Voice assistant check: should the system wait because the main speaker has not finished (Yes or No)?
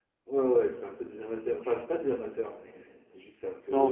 No